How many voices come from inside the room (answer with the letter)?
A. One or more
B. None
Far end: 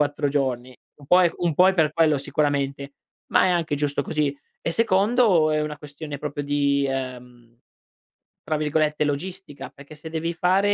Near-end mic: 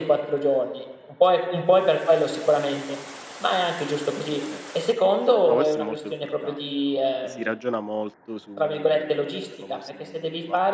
A